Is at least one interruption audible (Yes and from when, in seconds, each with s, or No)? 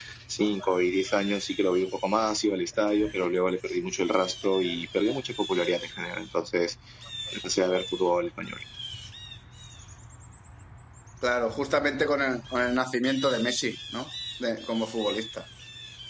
No